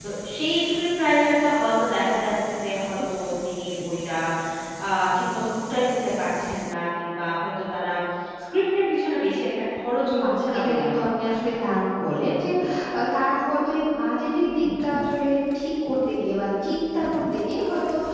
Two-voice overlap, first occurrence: 10.1 s

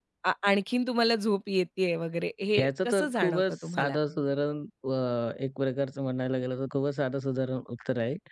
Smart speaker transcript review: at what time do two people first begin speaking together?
2.5 s

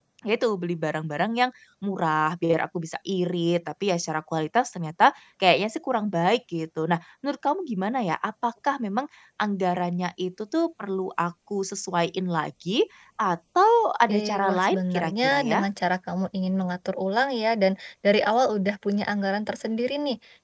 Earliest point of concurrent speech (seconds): 14.1 s

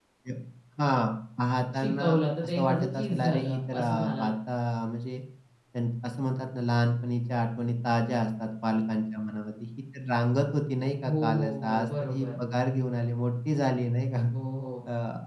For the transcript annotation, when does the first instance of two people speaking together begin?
1.8 s

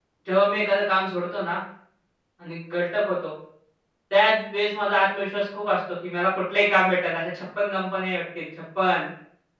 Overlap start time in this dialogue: none

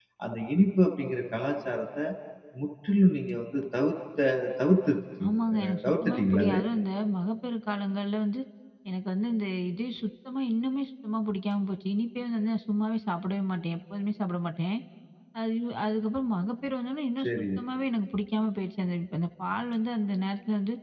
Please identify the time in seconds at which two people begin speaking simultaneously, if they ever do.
5.3 s

